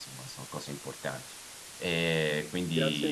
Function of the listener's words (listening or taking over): taking over